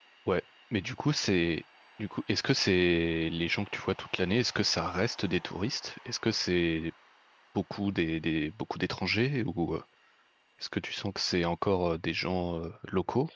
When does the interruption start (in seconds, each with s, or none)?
none